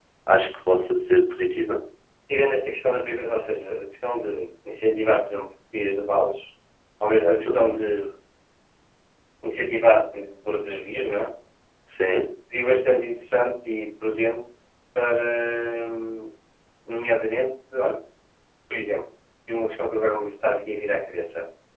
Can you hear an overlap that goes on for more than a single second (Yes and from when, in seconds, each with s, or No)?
No